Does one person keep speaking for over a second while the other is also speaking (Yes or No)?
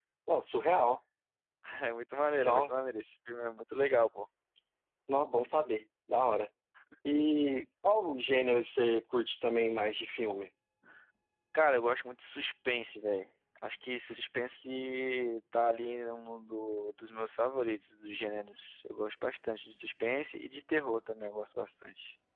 No